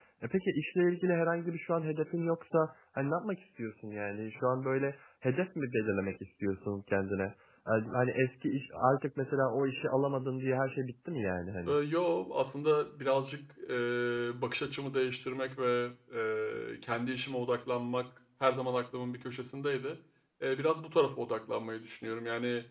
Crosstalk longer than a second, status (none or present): none